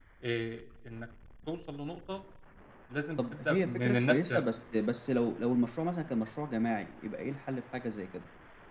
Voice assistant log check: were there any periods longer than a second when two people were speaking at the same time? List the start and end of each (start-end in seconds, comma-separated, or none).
3.2-4.4